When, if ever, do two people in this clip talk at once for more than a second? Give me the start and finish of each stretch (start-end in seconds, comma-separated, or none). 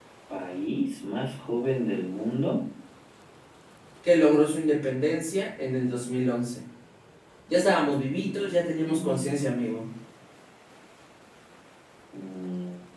8.1-9.3